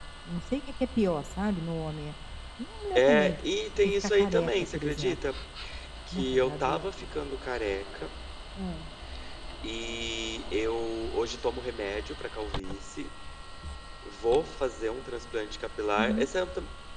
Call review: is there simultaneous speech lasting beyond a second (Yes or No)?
Yes